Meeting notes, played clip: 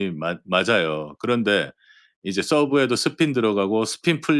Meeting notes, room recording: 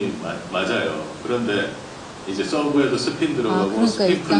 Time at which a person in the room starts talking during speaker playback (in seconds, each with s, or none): 3.5 s